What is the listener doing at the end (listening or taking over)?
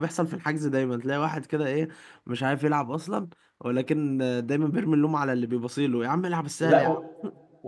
taking over